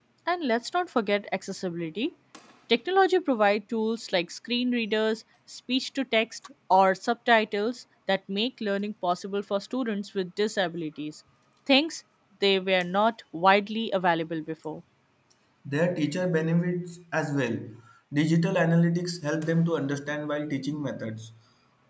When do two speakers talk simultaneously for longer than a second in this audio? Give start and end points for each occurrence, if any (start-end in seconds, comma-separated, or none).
none